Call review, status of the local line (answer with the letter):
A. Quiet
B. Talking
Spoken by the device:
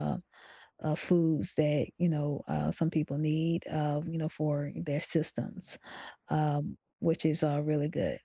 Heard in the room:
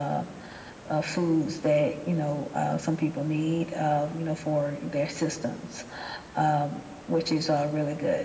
A